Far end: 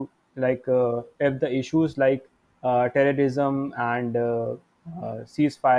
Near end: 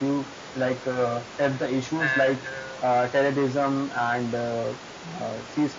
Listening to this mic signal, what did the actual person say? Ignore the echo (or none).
and uh,